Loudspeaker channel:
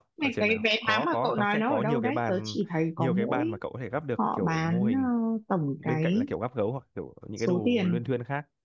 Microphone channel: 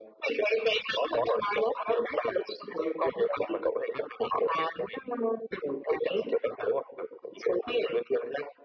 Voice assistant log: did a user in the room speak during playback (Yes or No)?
No